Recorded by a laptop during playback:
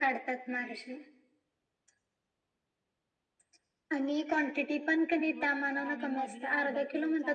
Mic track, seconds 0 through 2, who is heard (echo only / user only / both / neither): echo only